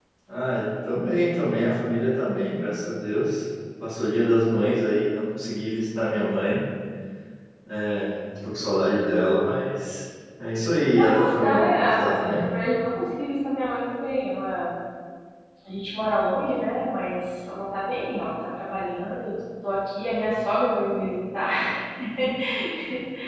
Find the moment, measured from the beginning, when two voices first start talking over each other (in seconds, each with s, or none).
11.0 s